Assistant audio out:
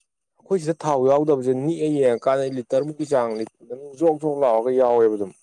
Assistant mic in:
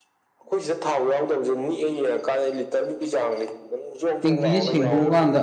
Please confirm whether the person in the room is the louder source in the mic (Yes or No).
Yes